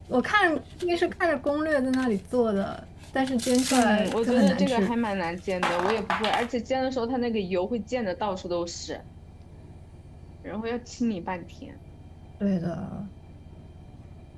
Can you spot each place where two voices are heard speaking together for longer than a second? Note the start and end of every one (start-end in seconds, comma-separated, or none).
3.7-4.9